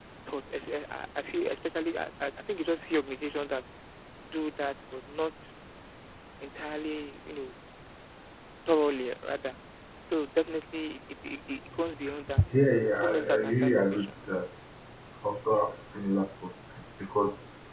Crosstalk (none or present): present